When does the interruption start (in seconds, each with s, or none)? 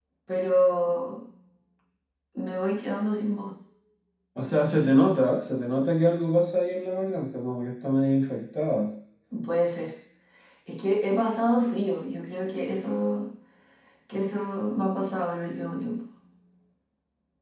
none